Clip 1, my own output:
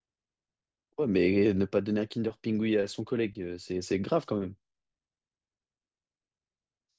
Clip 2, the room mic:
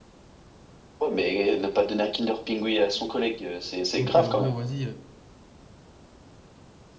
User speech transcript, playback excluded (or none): Donc, euh, bon, vas-y,